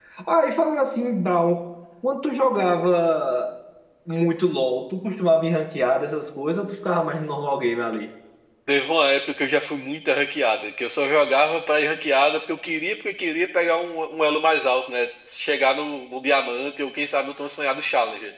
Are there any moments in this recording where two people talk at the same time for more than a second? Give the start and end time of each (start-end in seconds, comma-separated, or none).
none